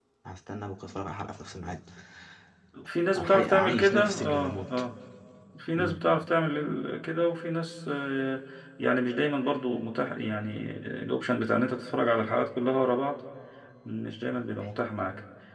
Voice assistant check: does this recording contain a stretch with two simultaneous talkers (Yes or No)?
Yes